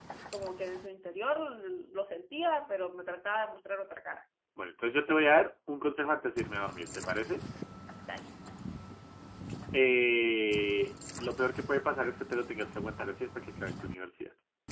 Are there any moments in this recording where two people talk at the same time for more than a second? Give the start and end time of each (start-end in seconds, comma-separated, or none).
none